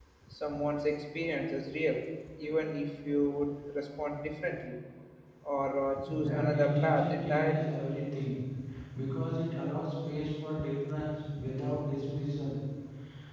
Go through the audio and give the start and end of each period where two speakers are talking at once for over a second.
6.2-7.7

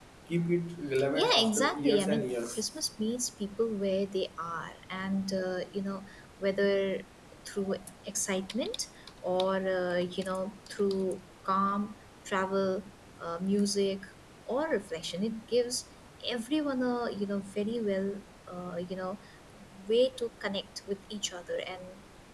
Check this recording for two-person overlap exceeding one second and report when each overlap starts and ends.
1.1-2.5

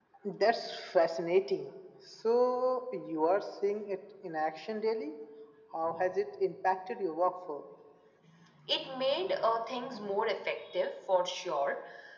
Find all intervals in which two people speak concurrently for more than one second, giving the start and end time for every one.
none

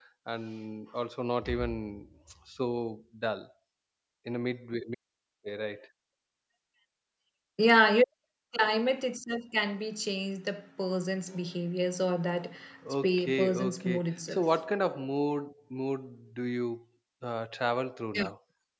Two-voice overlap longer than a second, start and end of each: 13.0-14.5

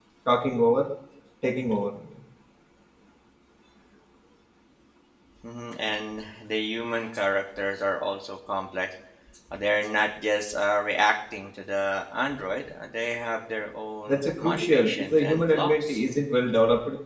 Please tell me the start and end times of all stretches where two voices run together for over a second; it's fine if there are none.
14.1-16.0

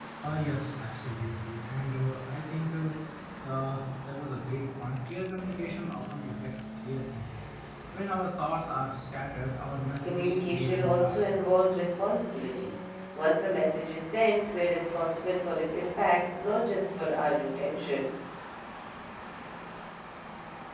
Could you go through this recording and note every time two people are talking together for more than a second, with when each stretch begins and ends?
10.0-11.4

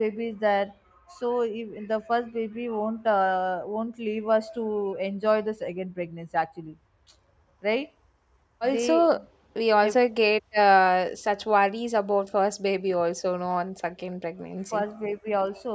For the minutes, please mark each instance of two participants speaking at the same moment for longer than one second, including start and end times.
none

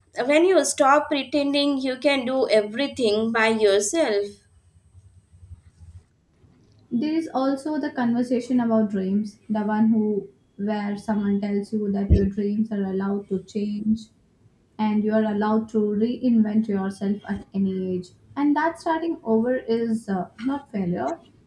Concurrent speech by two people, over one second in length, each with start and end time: none

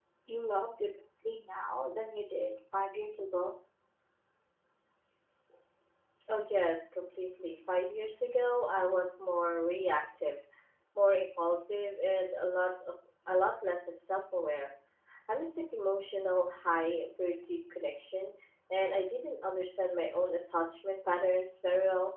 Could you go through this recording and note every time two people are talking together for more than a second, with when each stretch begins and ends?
none

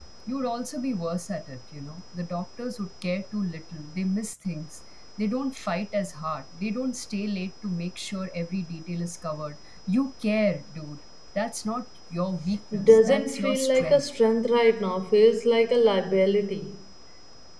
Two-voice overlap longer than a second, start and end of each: 12.8-14.0

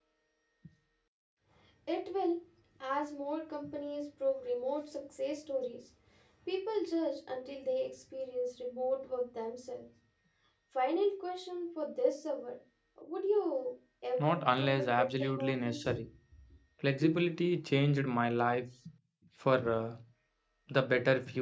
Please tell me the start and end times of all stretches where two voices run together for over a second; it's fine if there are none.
14.2-15.8

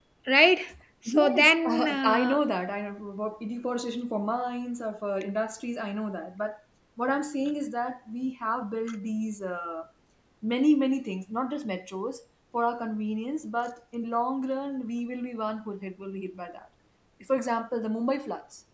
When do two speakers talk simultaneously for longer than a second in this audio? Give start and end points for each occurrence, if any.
1.1-2.5

